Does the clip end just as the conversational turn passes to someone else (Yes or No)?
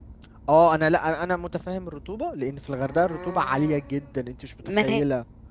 Yes